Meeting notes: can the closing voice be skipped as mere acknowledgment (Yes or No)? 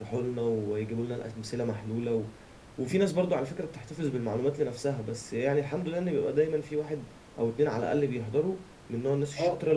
No